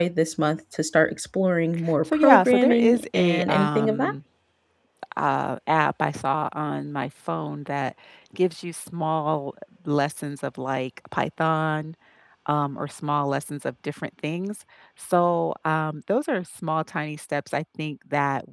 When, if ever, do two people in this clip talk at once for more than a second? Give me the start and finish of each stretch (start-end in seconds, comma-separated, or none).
2.1-4.1